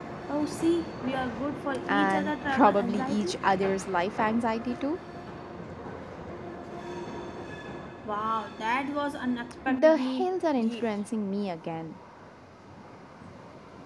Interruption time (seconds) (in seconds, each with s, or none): 1.9 s